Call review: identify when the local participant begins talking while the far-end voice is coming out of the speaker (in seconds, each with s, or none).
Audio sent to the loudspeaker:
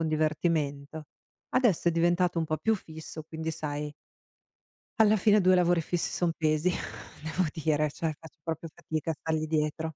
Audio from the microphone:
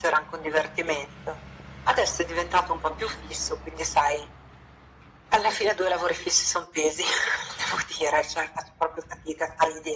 none